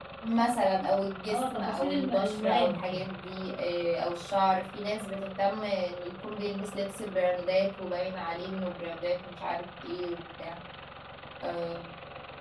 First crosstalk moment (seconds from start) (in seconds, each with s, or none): 1.3 s